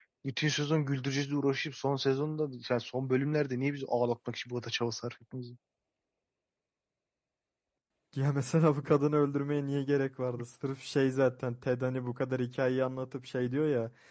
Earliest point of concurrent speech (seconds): none

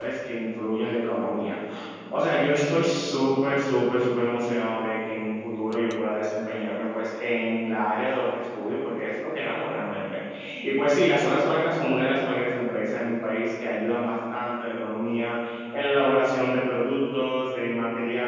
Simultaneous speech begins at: none

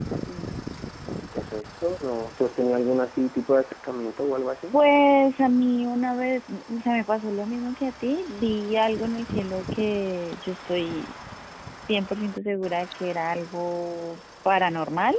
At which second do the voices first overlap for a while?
none

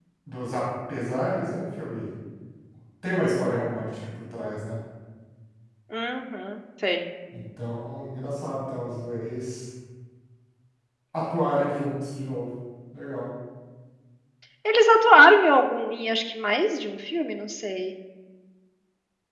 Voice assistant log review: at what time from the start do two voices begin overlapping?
none

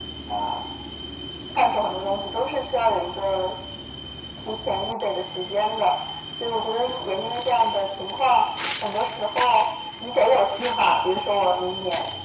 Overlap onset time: none

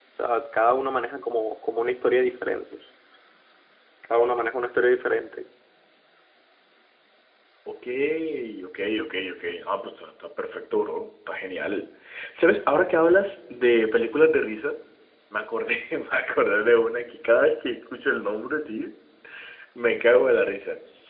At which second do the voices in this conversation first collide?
none

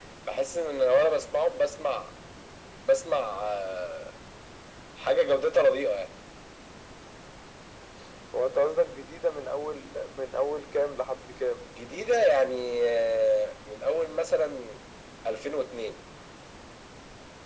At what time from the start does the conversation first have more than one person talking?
none

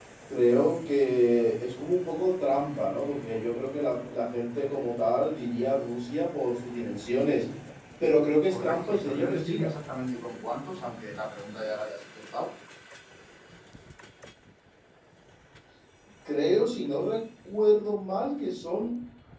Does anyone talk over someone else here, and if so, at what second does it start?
8.5 s

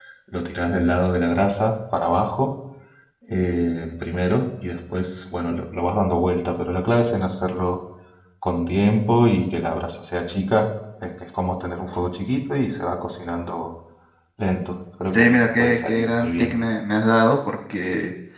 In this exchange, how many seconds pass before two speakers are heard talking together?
15.1 s

